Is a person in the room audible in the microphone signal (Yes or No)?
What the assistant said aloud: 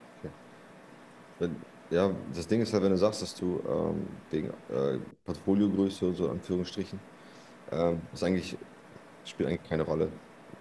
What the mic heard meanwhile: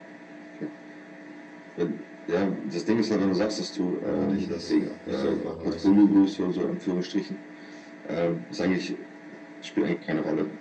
Yes